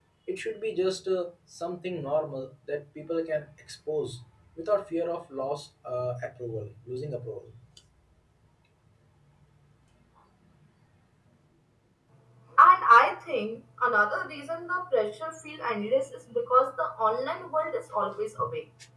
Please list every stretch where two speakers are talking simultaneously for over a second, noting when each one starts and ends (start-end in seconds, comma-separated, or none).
none